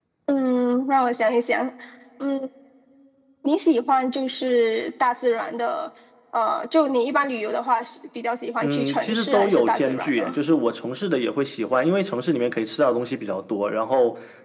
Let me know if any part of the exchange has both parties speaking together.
Yes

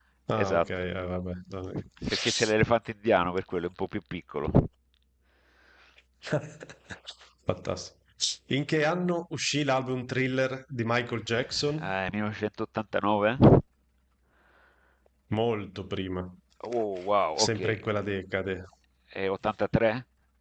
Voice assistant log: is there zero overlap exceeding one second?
Yes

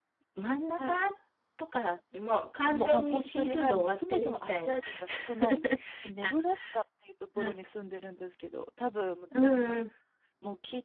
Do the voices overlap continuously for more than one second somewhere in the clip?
Yes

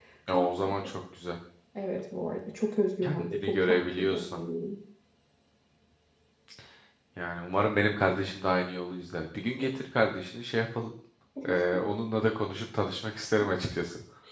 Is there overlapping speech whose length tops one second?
Yes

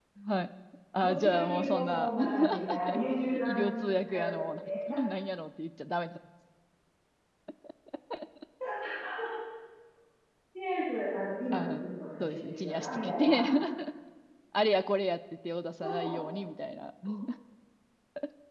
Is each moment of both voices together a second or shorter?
No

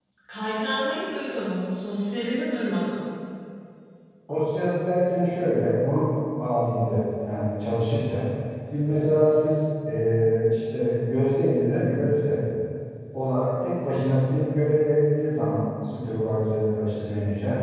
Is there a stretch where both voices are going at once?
No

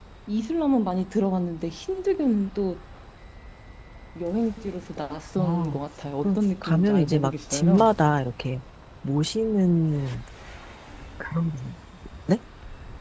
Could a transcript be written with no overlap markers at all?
No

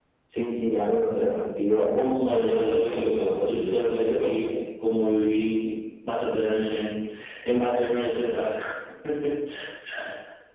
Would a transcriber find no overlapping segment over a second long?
No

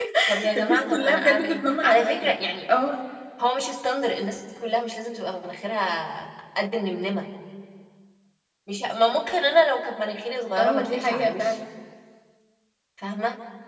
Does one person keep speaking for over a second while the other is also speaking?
Yes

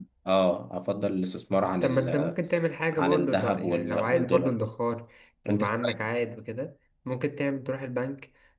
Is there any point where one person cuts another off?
Yes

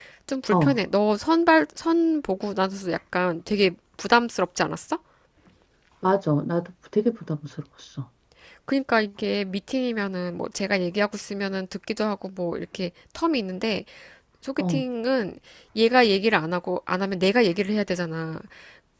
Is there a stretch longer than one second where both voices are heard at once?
No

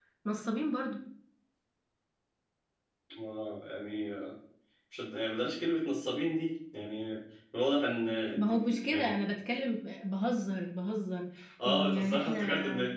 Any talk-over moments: Yes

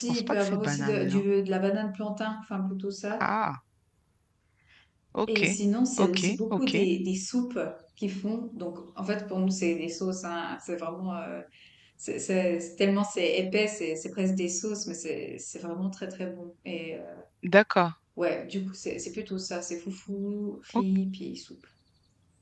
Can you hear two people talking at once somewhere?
Yes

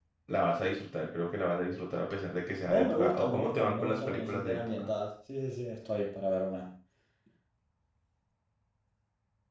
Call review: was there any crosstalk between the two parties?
Yes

